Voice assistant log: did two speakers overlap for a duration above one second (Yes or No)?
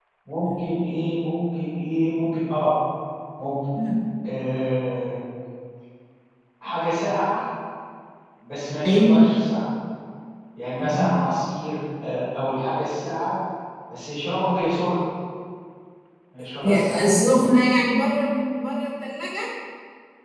No